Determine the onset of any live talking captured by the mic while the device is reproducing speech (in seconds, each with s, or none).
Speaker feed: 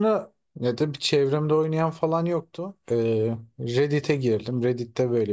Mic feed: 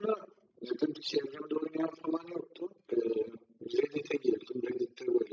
none